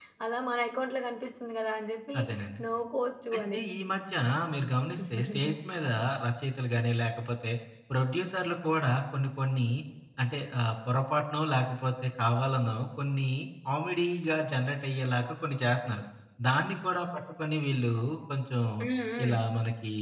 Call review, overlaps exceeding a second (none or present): none